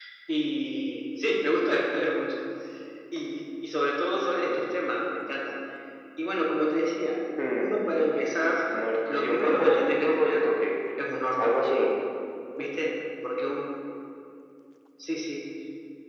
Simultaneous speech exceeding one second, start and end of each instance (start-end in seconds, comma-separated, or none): 9.1-10.5